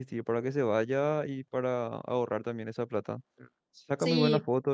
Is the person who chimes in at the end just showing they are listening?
Yes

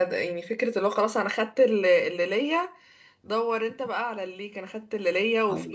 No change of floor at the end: Yes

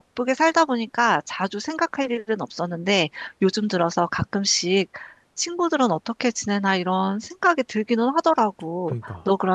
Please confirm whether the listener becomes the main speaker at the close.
No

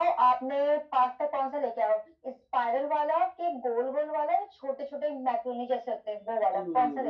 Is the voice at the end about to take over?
Yes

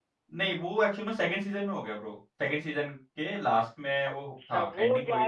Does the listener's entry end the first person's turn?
Yes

